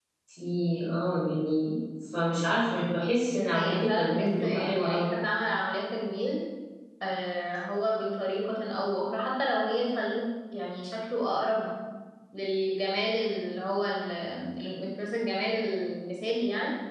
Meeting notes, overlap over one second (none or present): present